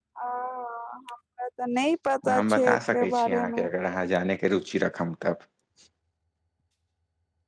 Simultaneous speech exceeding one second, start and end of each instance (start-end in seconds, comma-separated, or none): 2.3-3.6